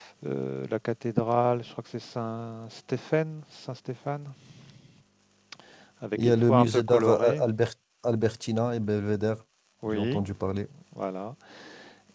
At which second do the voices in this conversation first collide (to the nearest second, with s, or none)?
6 s